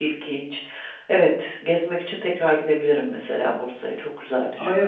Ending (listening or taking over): taking over